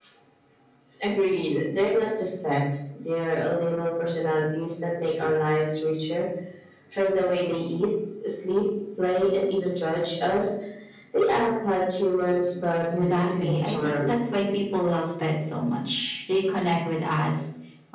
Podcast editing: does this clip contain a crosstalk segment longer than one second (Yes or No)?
Yes